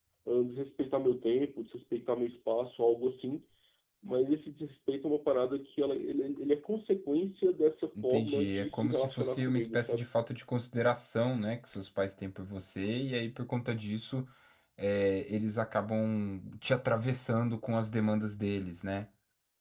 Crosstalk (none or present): present